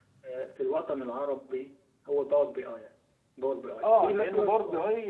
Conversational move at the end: taking over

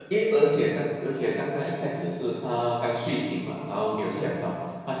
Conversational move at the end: listening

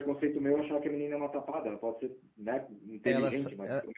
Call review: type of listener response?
taking over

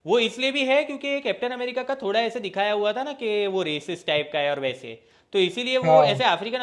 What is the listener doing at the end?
listening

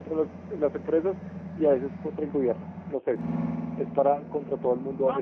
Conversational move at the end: taking over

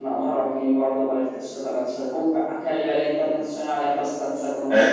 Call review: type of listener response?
taking over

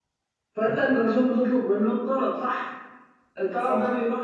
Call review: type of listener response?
listening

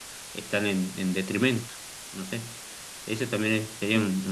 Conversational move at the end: listening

